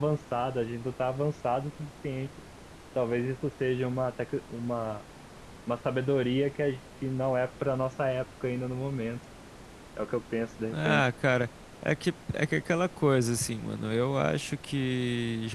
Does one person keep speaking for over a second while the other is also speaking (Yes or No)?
No